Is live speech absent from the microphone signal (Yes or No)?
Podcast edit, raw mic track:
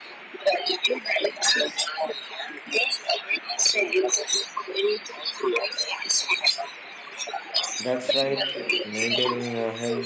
No